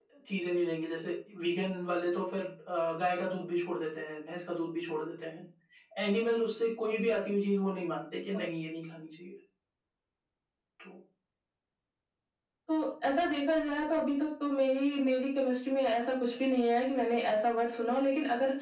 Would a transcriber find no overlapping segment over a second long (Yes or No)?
Yes